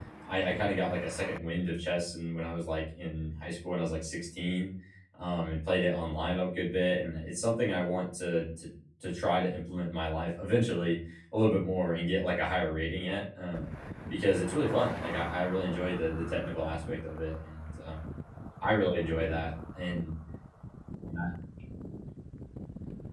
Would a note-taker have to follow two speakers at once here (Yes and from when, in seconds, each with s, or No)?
No